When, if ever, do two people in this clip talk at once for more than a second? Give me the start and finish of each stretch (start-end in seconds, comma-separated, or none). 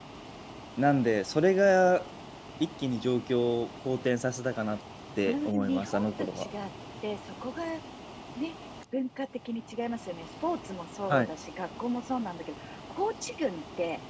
5.3-6.5